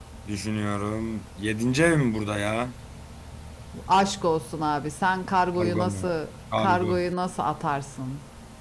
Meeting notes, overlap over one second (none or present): none